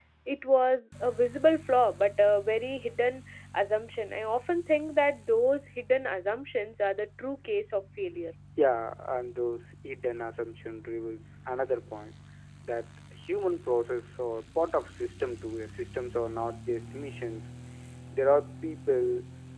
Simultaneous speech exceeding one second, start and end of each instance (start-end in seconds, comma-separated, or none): none